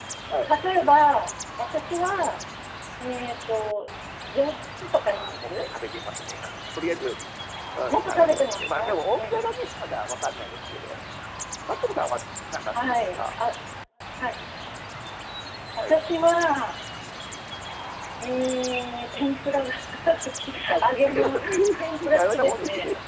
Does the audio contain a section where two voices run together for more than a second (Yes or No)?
Yes